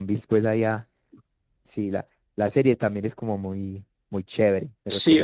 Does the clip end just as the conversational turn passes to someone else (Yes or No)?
Yes